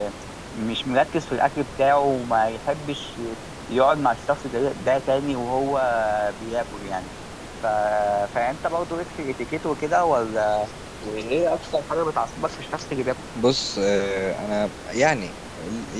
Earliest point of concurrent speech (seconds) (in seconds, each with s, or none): none